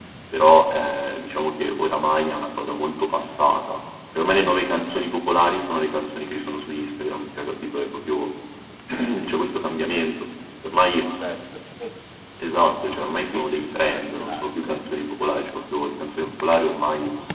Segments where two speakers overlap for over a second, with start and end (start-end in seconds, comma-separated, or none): 13.1-14.8